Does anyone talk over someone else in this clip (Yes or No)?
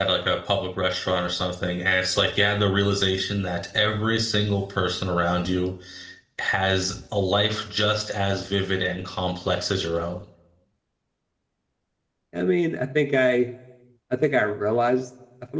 No